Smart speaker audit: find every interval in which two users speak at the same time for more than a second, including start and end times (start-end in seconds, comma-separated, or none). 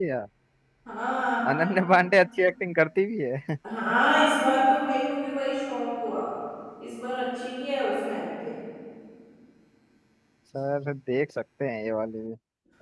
none